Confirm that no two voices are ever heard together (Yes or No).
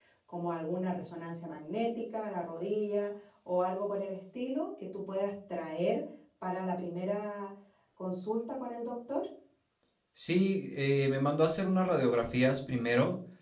Yes